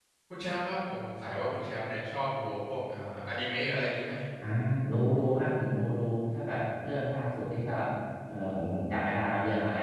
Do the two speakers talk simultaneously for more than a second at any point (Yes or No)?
No